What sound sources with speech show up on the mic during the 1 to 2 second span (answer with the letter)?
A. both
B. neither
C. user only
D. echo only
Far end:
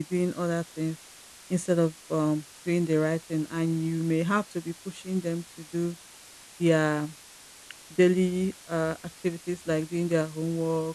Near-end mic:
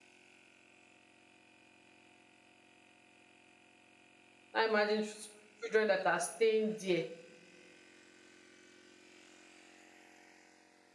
B